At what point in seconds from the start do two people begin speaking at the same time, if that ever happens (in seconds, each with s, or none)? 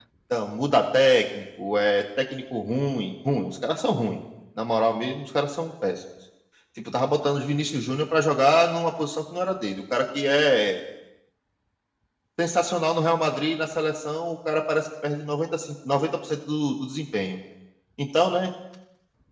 none